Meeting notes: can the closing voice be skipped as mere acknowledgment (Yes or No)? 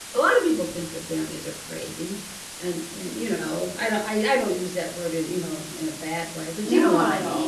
No